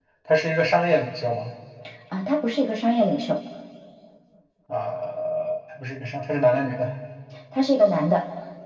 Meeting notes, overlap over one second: none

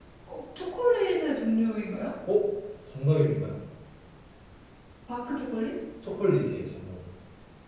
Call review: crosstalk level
none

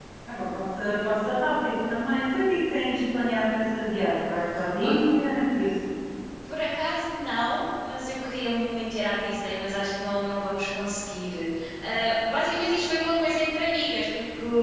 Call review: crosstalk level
none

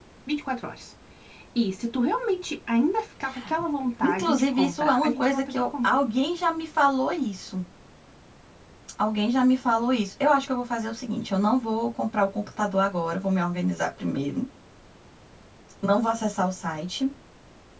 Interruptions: present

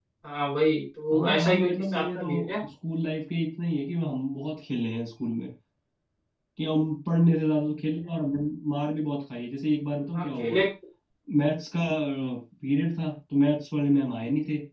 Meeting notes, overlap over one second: present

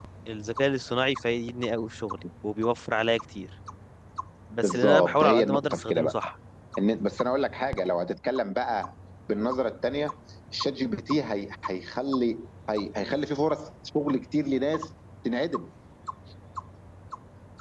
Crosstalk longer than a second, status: present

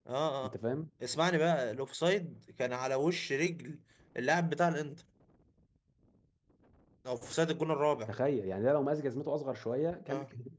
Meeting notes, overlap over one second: none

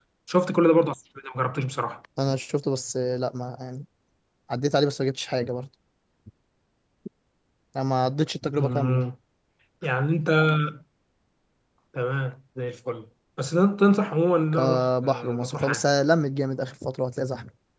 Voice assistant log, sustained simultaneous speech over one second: present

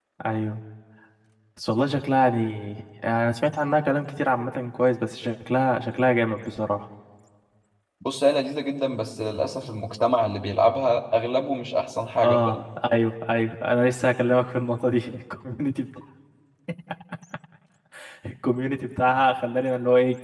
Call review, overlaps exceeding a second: none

